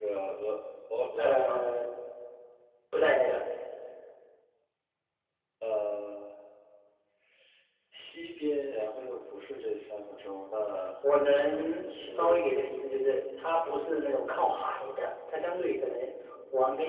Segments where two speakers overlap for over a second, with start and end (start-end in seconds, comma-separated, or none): 11.2-12.5